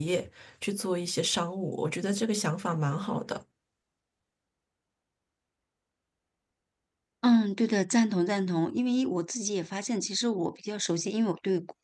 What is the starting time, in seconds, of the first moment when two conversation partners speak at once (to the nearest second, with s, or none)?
none